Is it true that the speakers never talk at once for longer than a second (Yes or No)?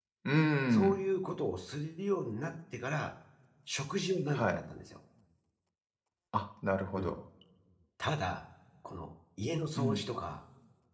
Yes